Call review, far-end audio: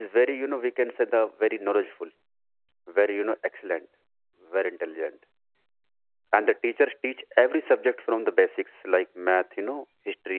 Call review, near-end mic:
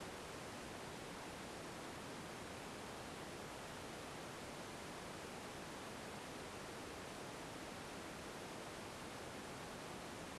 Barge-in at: none

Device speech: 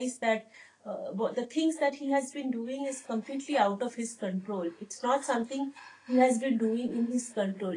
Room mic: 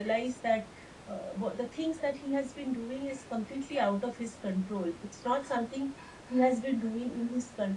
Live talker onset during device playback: none

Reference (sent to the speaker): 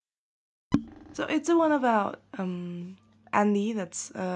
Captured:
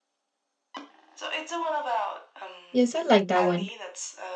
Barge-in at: 2.7 s

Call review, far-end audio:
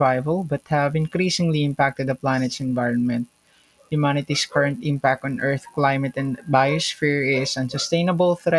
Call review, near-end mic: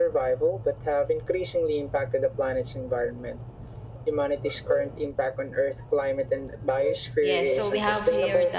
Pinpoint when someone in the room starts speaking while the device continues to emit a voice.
7.2 s

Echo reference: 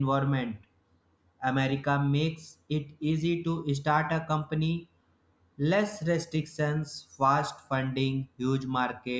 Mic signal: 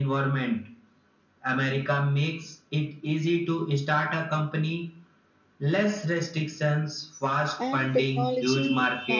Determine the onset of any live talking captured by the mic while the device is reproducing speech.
7.6 s

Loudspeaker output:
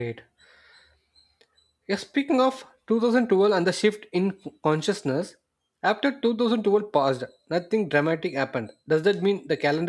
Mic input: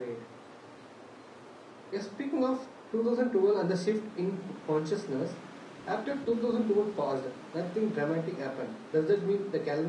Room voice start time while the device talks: none

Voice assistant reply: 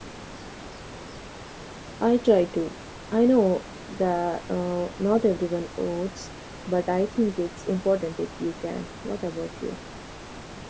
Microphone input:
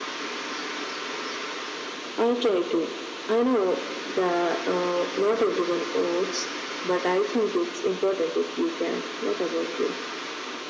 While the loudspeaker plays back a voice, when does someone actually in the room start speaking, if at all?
none

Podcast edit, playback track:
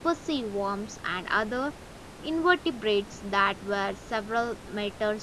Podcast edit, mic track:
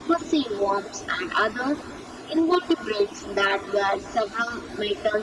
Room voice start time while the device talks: none

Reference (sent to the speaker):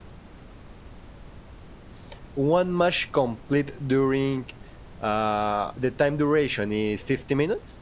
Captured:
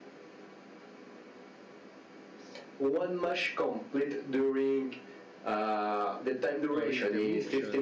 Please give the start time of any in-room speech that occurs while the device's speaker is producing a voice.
6.7 s

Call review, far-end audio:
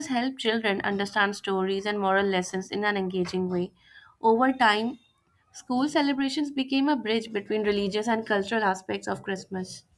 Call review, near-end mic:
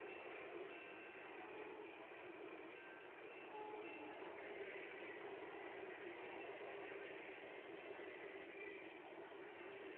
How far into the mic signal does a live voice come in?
none

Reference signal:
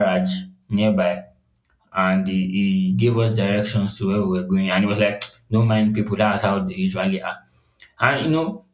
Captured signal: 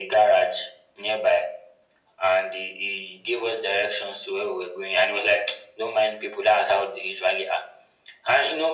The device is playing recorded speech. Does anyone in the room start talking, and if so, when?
none

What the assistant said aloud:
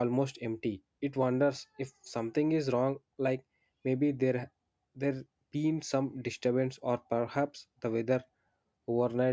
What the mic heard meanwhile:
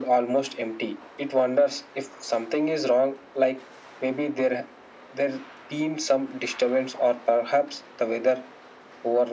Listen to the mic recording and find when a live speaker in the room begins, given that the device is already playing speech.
none

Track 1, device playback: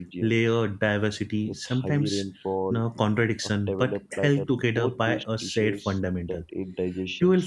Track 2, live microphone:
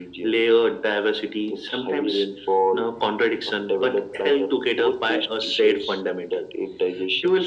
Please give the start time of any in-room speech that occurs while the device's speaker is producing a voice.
none

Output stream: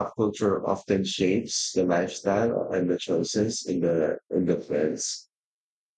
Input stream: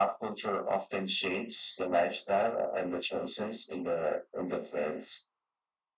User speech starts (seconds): none

